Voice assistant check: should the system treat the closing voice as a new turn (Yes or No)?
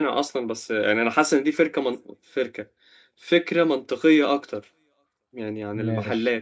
Yes